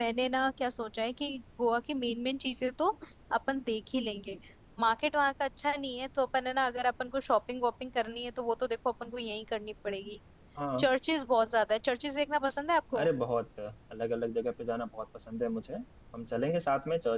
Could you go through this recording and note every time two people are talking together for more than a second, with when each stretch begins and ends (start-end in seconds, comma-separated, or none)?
none